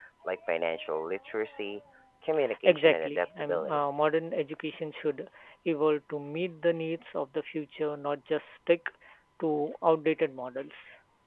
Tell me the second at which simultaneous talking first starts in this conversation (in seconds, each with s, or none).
2.6 s